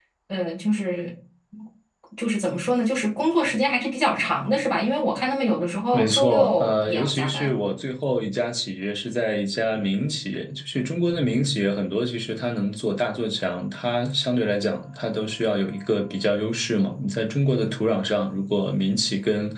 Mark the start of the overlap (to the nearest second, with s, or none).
6 s